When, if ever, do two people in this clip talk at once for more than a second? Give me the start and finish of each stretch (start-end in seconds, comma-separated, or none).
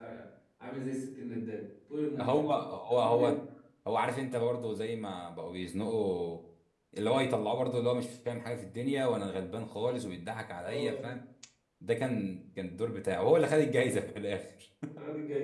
none